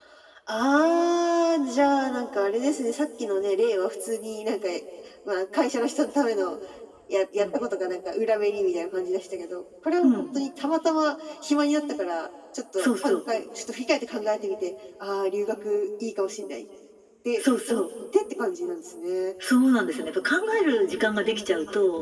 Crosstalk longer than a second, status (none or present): none